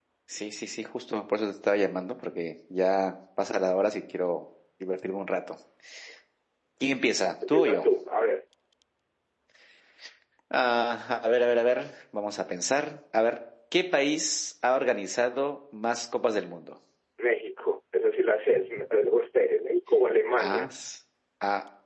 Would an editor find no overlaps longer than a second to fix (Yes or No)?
Yes